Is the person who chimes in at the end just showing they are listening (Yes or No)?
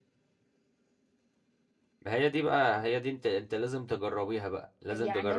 No